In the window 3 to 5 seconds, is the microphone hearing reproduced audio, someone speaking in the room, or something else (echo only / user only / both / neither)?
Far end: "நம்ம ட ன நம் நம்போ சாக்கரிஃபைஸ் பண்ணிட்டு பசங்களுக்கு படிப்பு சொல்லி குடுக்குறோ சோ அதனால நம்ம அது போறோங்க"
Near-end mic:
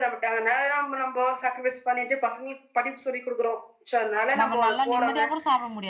both